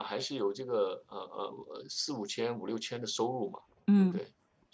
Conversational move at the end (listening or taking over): listening